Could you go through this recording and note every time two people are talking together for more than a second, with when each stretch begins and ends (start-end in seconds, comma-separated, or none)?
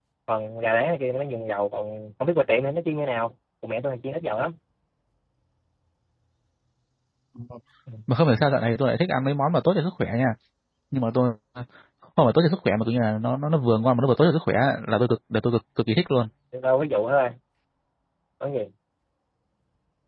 none